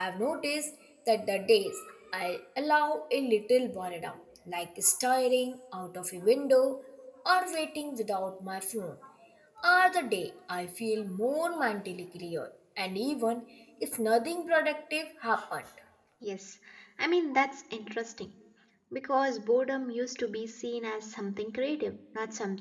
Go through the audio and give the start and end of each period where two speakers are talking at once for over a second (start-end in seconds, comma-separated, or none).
none